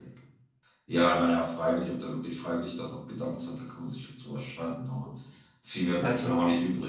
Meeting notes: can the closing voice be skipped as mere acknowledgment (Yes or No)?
Yes